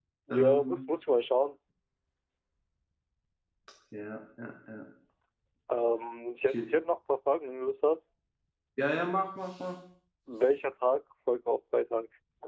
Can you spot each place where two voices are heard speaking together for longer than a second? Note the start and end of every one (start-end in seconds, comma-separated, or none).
none